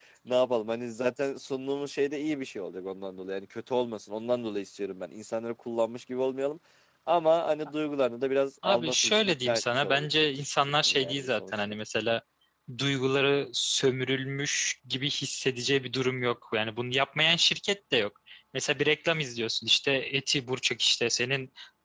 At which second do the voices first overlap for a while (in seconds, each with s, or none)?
8.6 s